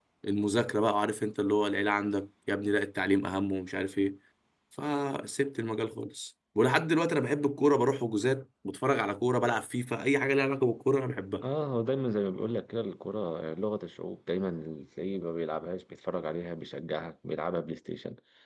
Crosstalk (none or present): none